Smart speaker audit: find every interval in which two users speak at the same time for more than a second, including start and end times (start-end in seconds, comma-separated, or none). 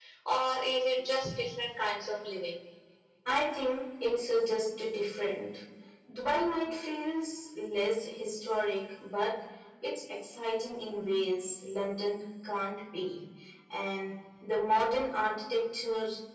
none